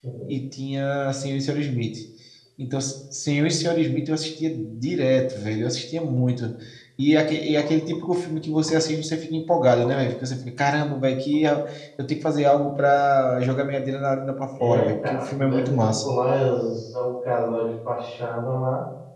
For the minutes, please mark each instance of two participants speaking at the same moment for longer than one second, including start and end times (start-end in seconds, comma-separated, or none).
14.6-16.0